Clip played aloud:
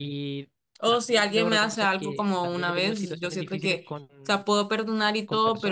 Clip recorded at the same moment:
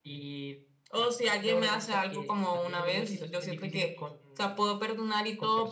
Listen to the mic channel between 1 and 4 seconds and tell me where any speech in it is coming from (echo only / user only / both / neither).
echo only